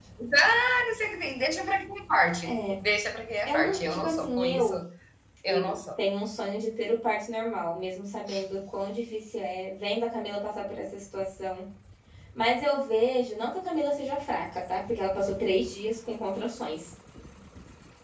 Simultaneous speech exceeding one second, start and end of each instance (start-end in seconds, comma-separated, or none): 3.5-4.7